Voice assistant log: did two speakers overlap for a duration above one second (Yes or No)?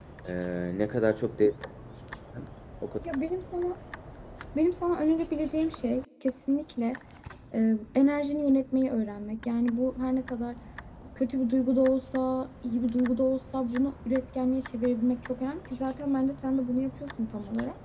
No